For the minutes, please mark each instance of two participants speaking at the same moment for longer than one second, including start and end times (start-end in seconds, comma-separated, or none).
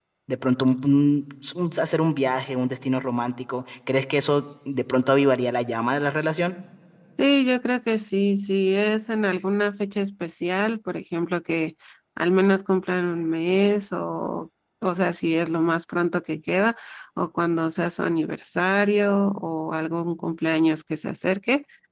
none